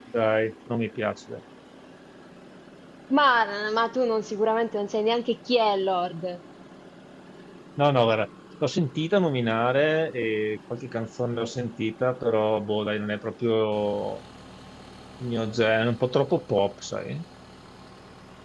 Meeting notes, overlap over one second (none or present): none